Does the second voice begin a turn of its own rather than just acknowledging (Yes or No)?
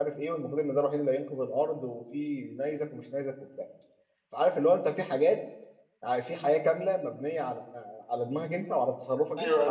Yes